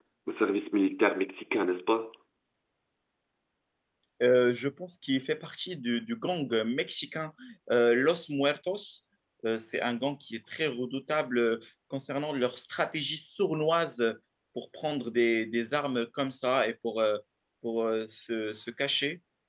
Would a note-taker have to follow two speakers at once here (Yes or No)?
No